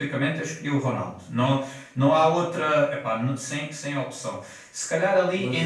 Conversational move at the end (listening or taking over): listening